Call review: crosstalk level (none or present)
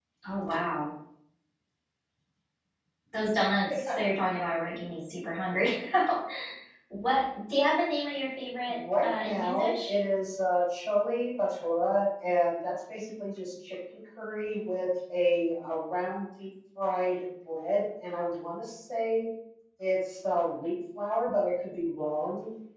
present